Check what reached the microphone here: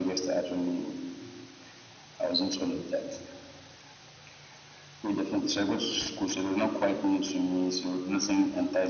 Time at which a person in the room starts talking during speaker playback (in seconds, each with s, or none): none